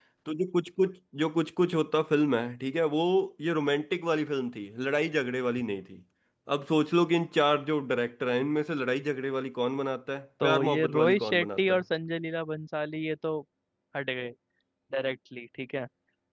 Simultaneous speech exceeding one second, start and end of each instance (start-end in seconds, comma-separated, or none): 10.4-11.8